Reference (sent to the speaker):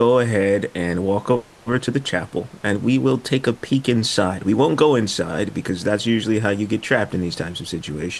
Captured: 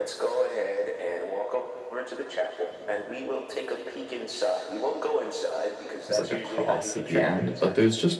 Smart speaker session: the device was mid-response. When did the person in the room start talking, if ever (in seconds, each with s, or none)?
6.0 s